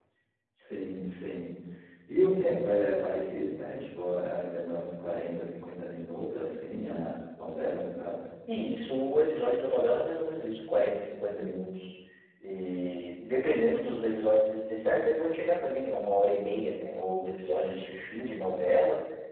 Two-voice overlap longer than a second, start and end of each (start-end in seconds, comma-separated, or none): none